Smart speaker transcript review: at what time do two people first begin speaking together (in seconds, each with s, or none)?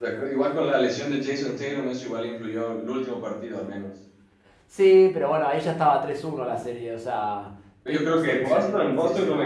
7.8 s